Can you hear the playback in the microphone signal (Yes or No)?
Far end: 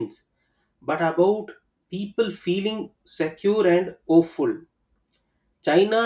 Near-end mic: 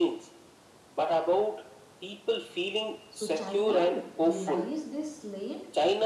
Yes